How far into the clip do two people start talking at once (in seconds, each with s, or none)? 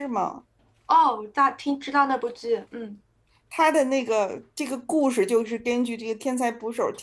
none